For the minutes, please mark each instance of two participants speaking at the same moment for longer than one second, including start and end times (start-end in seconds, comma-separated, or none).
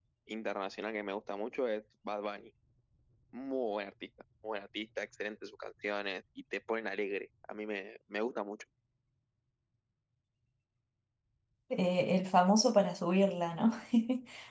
none